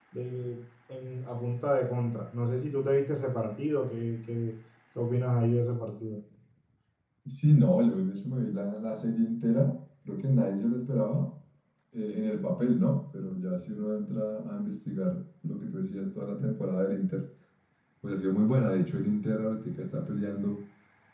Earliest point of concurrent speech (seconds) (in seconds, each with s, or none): none